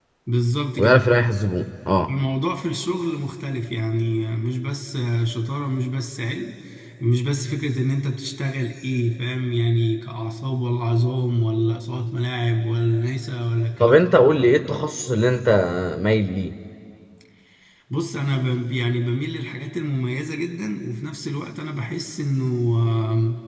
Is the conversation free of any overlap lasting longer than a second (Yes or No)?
Yes